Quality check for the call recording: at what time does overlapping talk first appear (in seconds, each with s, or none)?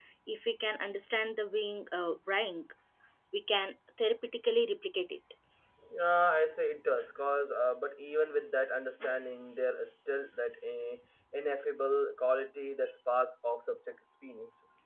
none